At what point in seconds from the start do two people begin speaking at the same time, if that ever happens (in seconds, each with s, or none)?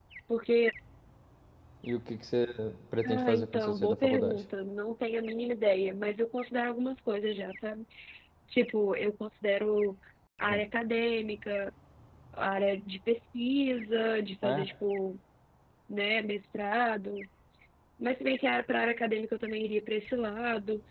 3.0 s